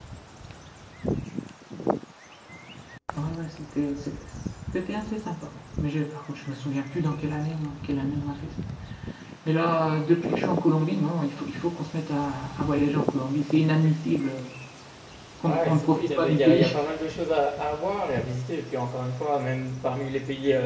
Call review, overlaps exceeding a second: present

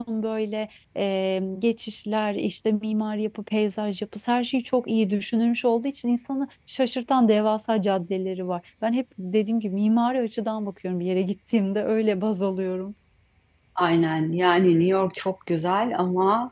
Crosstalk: none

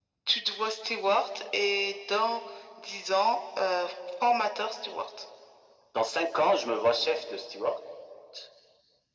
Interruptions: none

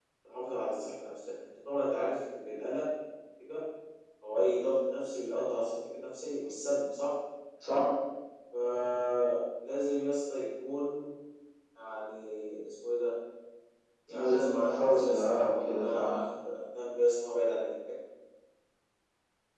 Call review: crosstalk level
present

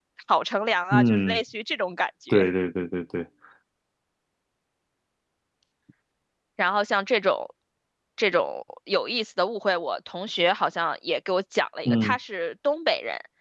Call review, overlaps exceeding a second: none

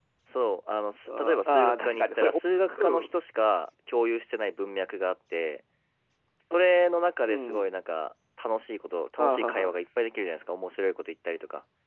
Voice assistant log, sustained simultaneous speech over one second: present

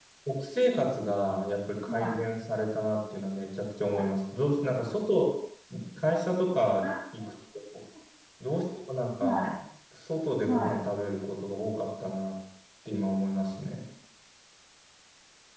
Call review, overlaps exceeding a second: none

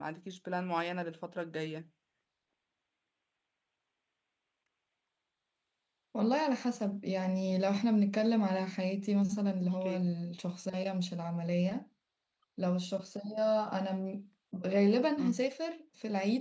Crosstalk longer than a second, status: none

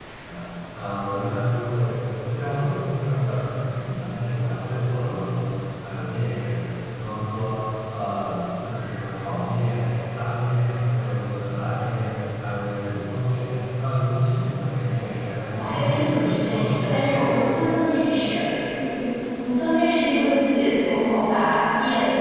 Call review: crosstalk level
present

